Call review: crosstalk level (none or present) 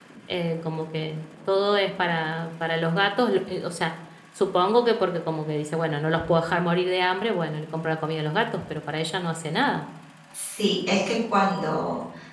none